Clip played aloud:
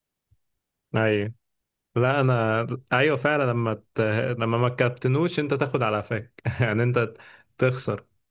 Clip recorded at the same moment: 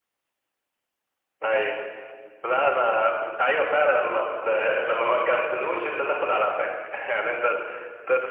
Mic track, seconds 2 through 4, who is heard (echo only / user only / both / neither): echo only